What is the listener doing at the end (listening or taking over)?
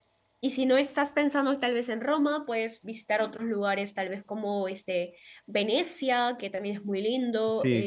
taking over